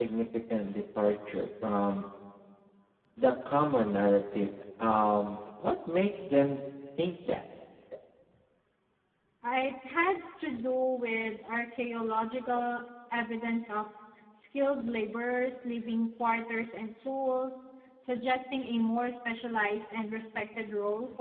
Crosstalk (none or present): none